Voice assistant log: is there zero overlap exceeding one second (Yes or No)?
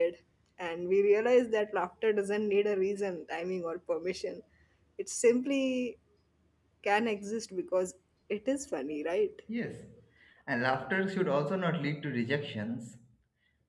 Yes